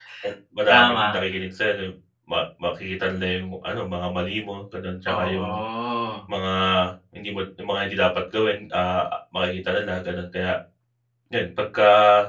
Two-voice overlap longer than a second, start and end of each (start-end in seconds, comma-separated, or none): none